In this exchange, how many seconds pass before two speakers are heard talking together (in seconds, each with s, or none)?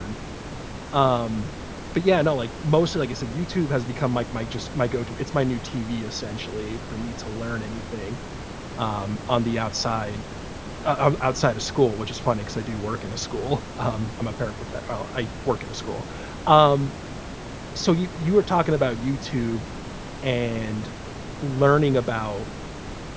none